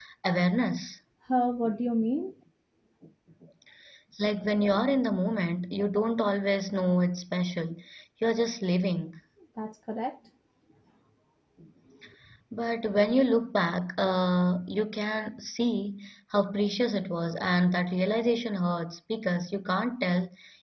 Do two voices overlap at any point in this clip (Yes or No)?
No